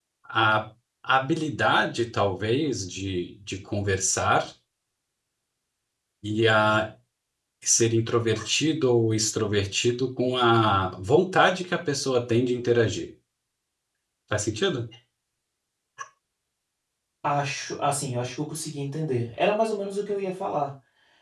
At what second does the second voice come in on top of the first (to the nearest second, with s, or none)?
none